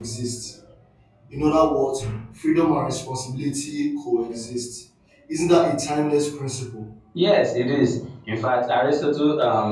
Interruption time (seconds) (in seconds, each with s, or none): none